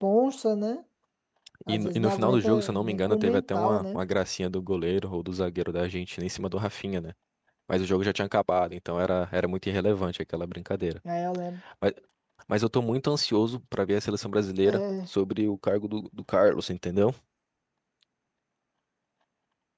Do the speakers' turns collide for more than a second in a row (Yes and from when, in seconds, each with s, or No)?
Yes, from 1.7 s